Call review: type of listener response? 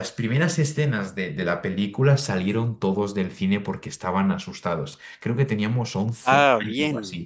listening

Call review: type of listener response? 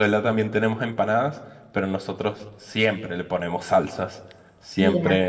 listening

